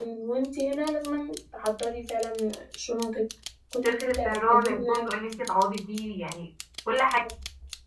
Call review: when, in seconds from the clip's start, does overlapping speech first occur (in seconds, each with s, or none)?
3.8 s